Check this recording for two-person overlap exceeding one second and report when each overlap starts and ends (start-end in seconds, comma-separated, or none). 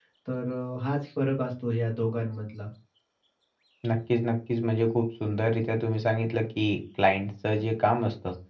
none